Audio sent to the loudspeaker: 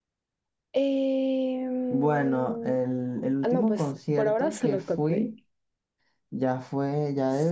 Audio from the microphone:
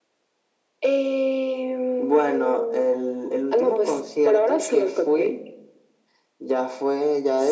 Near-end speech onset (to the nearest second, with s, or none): none